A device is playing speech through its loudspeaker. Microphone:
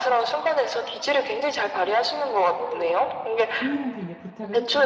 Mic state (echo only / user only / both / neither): both